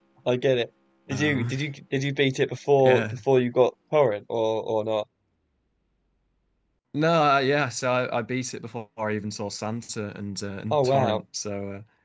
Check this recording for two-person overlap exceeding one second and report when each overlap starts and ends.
none

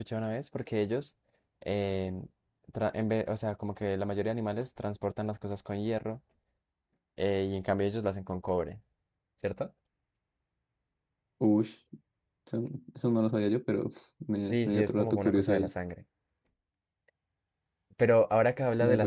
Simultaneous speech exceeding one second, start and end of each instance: 14.4-15.7

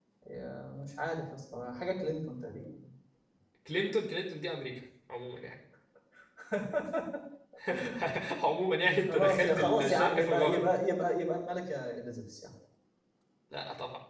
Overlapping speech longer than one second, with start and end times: 9.1-10.7

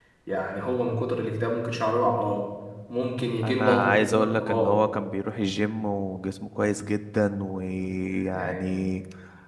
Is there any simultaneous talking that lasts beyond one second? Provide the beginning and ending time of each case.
3.4-4.8

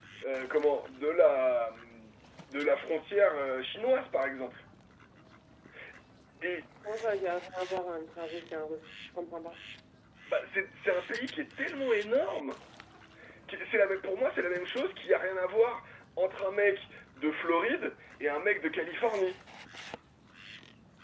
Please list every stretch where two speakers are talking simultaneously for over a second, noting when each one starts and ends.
none

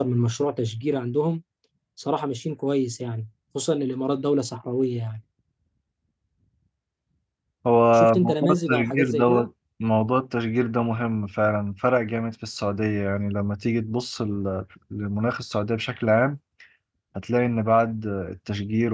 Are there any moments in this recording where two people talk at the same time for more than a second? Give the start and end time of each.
7.9-9.5

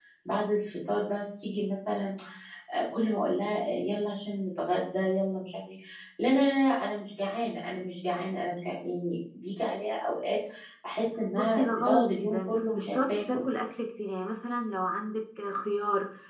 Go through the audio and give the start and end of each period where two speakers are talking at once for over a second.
11.3-13.4

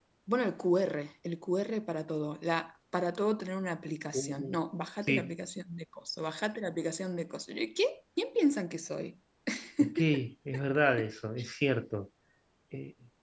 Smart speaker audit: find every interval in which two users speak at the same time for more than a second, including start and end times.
none

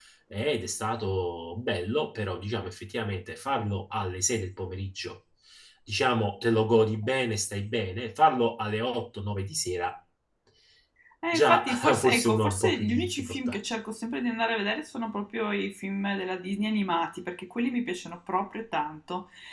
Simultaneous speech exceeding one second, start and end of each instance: 11.3-13.6

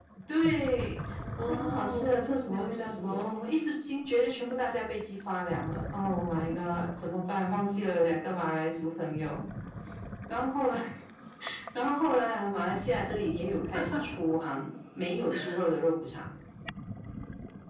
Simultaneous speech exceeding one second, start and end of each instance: 1.5-3.3

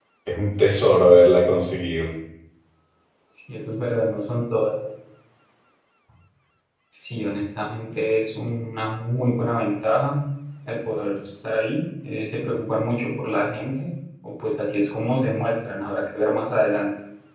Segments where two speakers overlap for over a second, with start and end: none

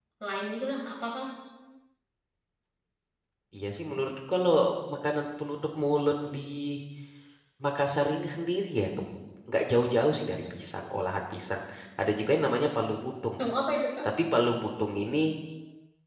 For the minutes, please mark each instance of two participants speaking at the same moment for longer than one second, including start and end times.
none

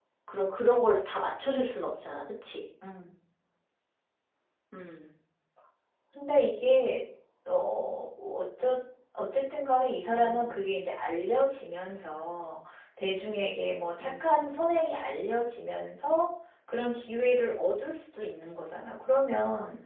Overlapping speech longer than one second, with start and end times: none

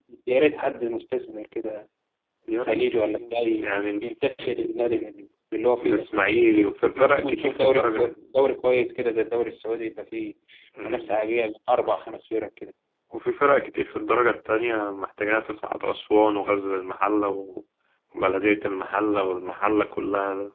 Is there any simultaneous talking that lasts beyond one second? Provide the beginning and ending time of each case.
6.6-8.1

